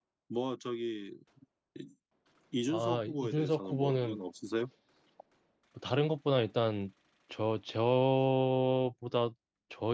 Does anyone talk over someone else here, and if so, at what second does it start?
2.7 s

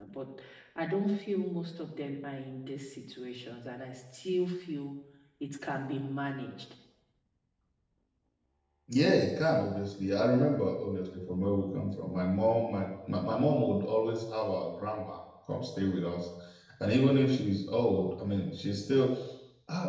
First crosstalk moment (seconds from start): none

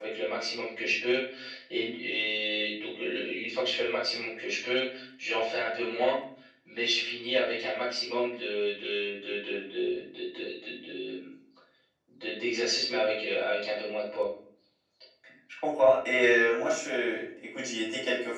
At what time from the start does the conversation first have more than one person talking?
none

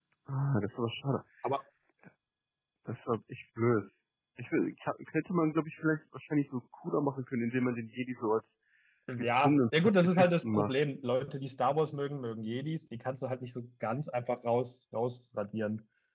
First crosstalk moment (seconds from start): 9.2 s

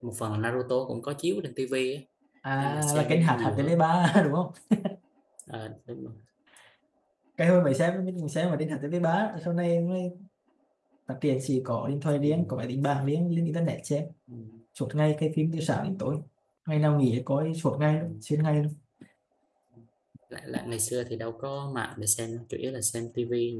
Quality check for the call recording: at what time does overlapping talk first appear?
2.6 s

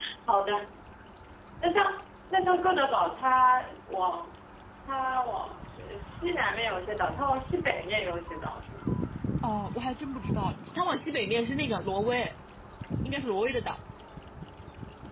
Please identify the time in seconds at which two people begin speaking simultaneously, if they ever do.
none

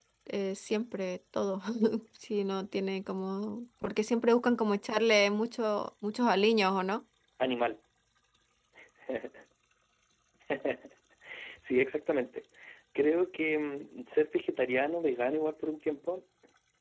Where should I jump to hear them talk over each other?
none

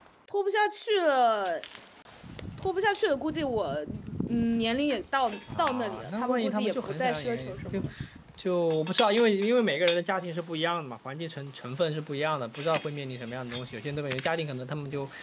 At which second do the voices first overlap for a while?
5.5 s

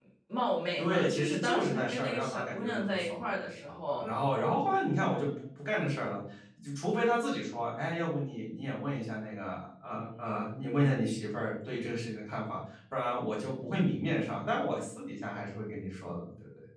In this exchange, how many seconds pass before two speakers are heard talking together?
0.8 s

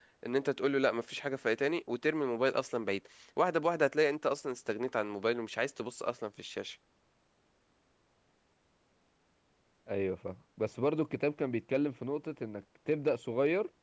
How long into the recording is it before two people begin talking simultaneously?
none

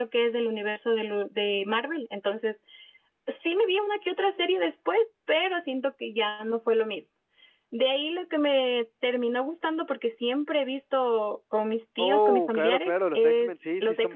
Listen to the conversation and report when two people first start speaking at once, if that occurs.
12.0 s

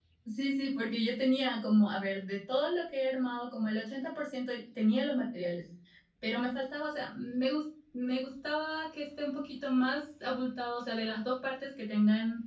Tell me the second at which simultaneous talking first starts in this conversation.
none

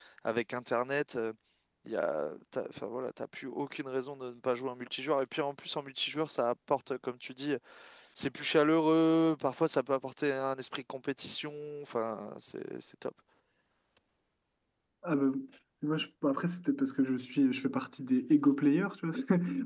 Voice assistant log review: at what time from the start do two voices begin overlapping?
none

